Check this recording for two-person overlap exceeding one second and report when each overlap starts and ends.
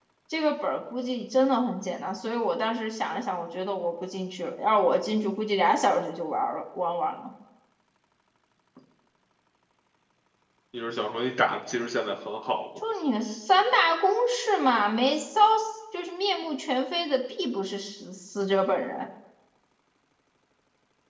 none

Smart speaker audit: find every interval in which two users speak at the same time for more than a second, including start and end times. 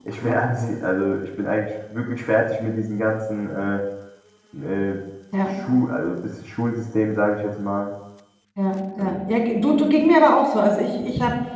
none

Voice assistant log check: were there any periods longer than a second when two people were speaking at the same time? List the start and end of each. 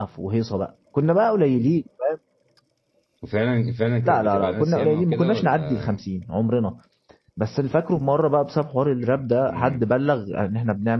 4.0-6.0

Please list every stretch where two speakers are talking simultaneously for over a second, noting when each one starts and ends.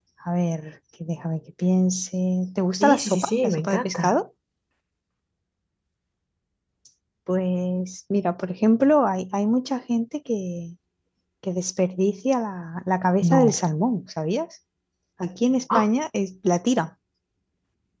2.8-4.1

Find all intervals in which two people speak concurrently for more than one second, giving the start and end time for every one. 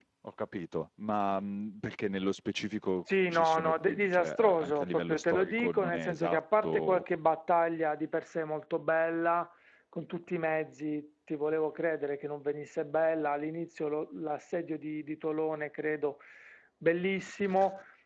3.3-7.2

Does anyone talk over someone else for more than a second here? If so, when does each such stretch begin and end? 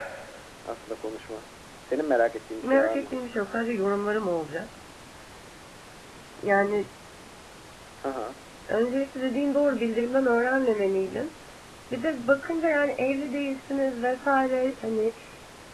none

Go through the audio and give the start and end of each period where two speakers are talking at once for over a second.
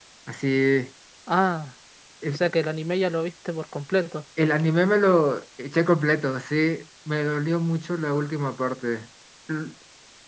none

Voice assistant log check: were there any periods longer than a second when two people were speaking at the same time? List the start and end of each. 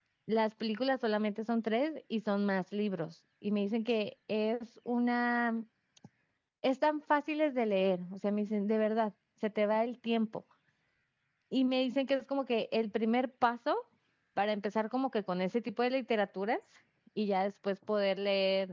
none

